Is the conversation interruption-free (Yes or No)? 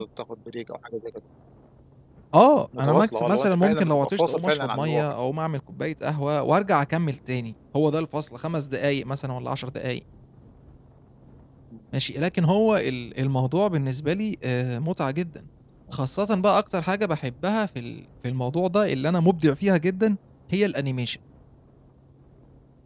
No